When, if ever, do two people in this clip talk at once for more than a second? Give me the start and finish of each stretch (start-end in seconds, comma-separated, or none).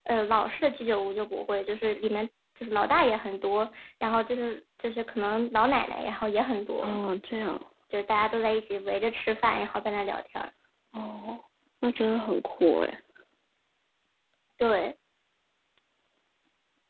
none